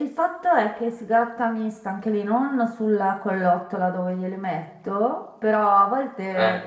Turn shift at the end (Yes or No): No